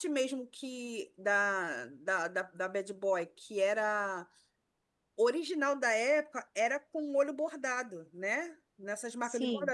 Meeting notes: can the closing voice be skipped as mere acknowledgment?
Yes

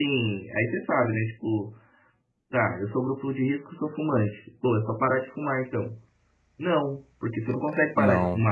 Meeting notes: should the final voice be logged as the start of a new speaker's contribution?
No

